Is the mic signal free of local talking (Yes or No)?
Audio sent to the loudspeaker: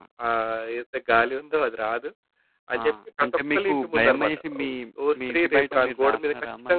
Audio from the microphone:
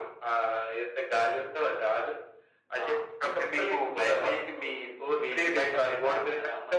Yes